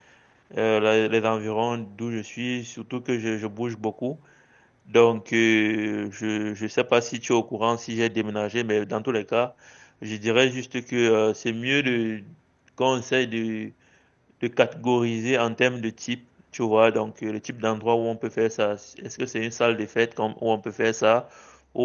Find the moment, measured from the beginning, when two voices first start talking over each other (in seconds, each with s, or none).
none